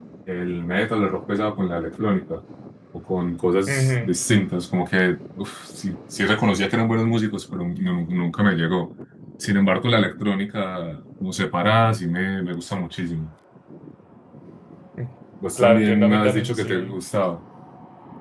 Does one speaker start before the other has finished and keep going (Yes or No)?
Yes